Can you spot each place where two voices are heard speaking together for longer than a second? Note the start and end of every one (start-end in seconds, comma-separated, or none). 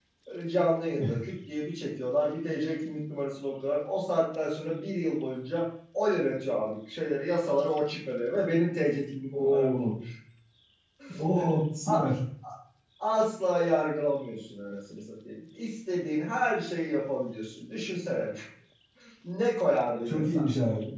none